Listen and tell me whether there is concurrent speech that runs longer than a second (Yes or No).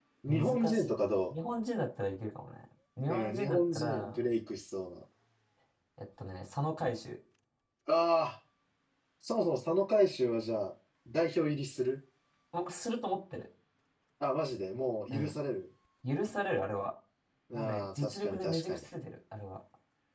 Yes